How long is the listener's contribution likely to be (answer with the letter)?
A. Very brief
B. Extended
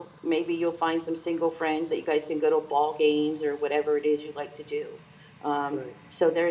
A